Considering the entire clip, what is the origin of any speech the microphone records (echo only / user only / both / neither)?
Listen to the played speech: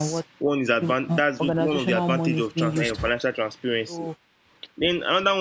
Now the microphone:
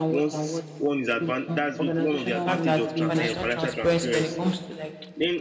both